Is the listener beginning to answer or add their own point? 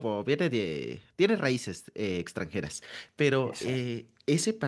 No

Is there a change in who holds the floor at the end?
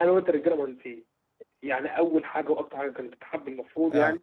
No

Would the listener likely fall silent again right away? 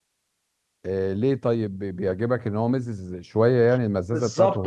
No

